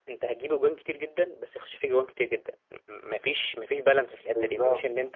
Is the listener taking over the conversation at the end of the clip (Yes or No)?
No